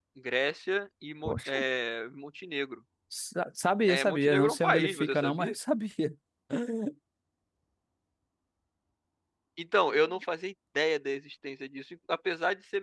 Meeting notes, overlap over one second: present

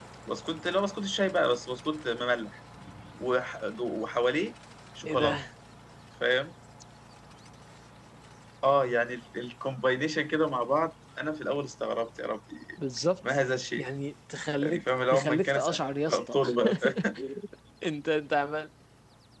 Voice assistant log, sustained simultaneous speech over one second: present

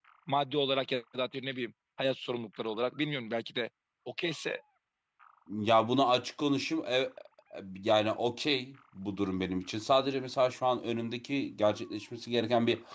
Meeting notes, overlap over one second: none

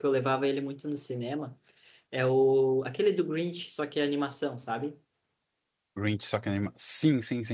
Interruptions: none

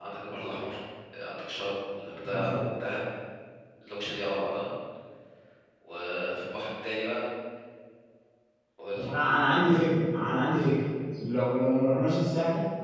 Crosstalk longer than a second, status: none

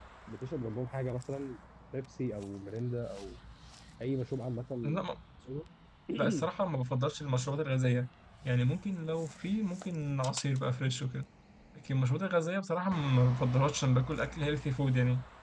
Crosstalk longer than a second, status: none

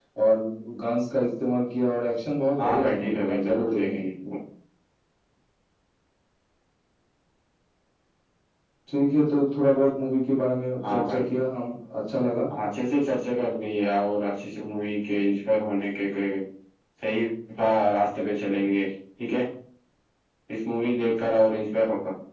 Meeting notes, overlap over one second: present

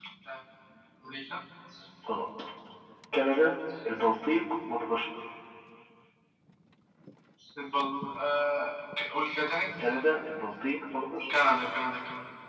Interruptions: none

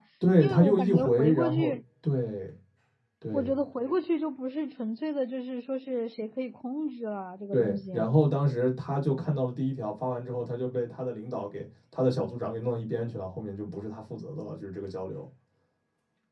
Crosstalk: present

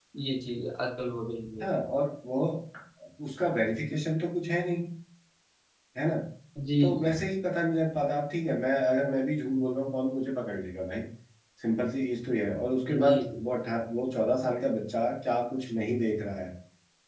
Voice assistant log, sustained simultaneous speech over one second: none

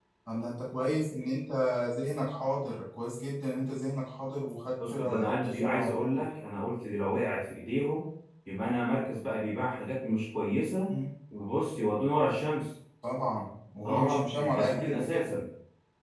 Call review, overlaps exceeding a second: present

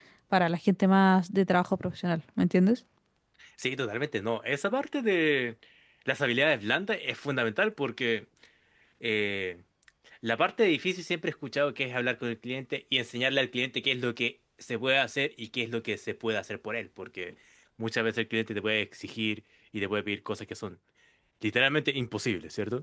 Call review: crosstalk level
none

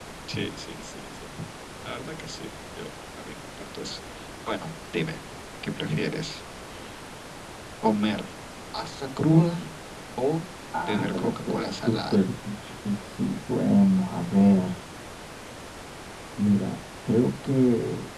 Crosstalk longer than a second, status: present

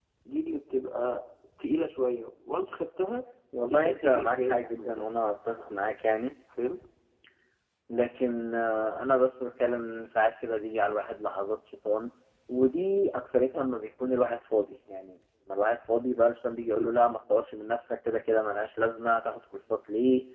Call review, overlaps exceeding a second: present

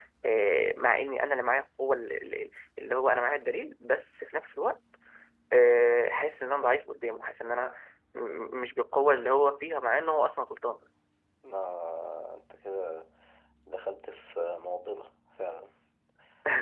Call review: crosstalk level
none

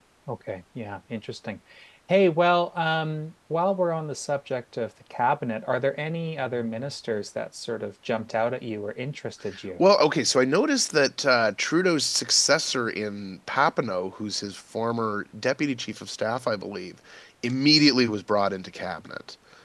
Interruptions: none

